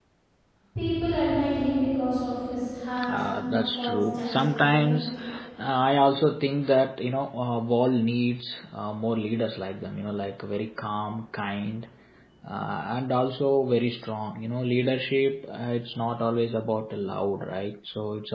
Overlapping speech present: Yes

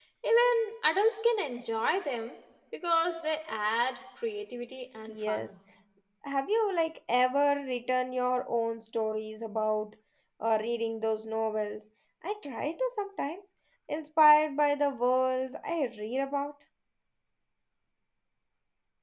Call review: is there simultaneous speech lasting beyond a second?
No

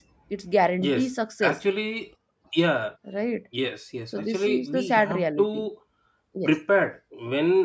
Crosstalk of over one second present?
Yes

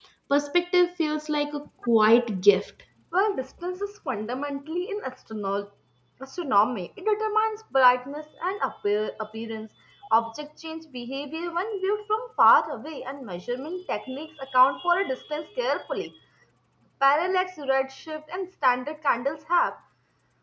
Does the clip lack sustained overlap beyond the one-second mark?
Yes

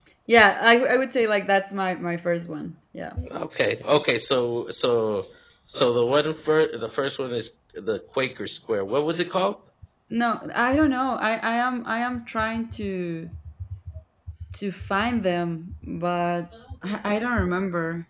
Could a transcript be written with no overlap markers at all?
Yes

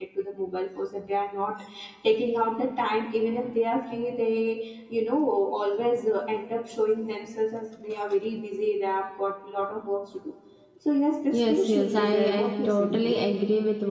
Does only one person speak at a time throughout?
No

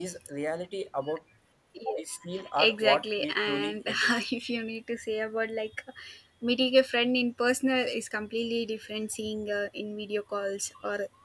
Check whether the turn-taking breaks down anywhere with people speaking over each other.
Yes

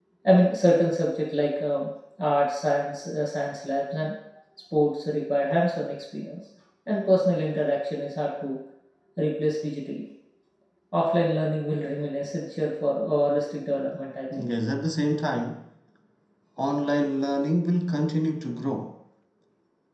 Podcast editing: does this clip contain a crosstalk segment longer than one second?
No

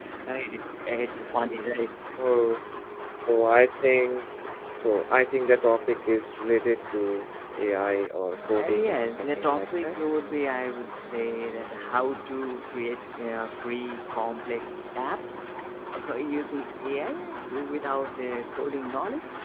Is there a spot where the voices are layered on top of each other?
Yes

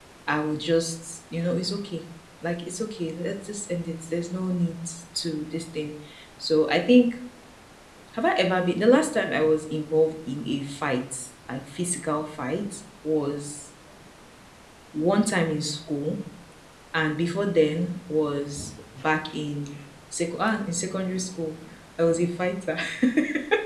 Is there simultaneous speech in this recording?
No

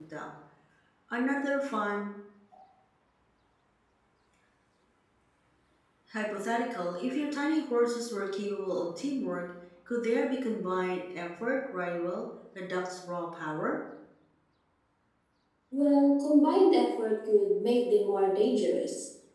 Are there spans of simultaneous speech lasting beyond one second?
No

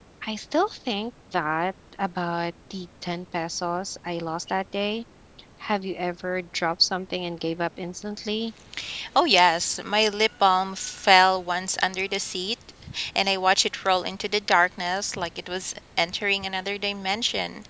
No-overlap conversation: Yes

